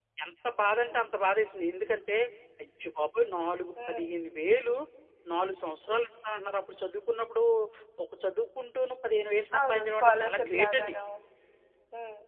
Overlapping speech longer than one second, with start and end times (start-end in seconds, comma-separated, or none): 9.6-10.9